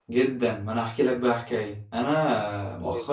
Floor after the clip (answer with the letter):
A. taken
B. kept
B